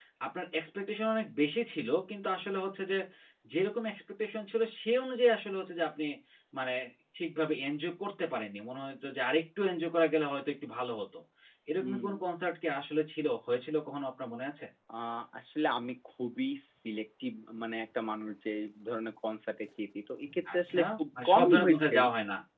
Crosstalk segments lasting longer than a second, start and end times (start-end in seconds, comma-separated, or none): 20.5-21.9